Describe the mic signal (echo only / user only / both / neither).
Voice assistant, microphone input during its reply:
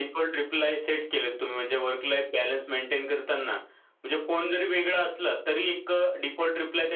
echo only